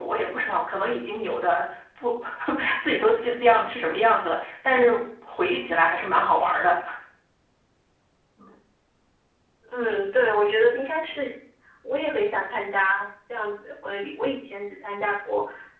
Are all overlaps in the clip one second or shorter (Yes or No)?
Yes